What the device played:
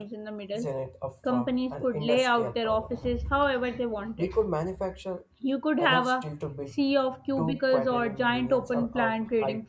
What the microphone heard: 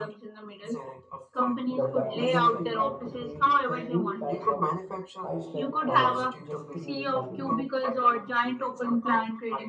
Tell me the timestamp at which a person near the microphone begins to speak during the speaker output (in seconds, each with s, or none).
1.7 s